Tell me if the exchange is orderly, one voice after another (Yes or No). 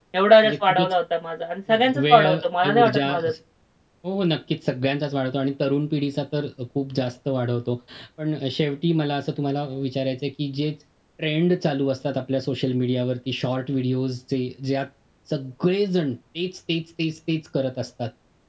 No